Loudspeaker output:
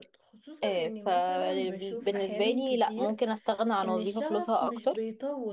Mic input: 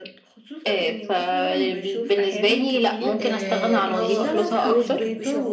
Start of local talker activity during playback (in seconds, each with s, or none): 3.2 s